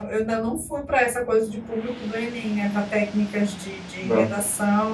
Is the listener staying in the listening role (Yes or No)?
Yes